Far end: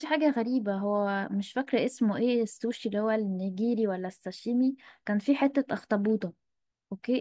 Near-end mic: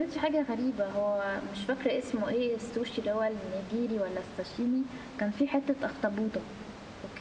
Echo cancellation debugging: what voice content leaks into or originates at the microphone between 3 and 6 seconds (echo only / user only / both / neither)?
echo only